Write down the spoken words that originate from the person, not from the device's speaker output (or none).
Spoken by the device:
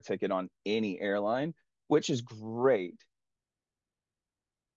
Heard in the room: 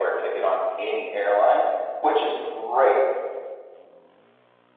none